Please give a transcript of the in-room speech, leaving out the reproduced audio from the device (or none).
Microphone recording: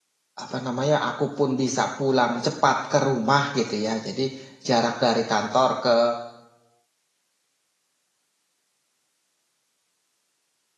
Apa namanya, aku pun bisa pulang cepat ke rumah gitu ya. Jadi jarak dari kantor ke